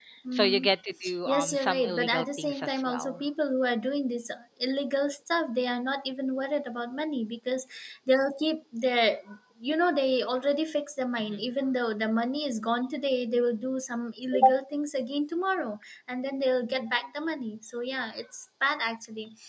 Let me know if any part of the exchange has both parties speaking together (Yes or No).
Yes